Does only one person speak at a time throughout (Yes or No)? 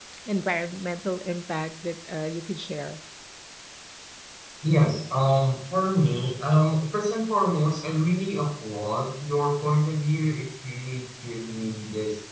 Yes